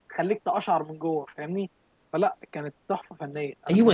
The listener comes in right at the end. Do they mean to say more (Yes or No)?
Yes